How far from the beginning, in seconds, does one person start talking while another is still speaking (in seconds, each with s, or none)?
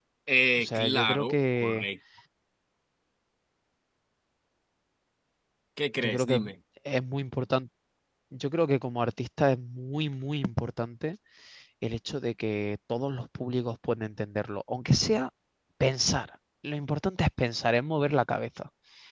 0.6 s